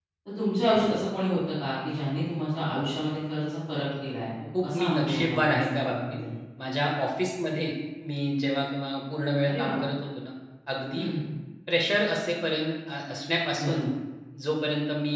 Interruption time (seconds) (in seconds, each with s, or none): 4.6 s